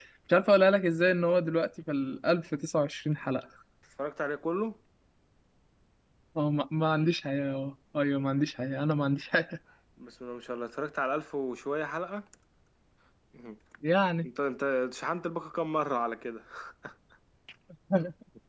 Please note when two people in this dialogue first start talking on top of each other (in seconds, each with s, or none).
none